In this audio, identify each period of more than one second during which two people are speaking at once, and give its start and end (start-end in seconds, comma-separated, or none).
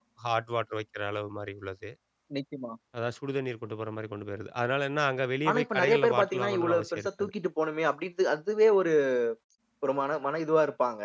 5.5-7.3